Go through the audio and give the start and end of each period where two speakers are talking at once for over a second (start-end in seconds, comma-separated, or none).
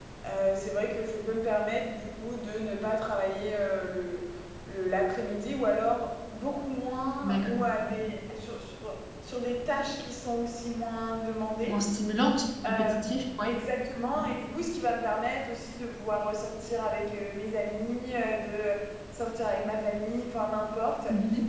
none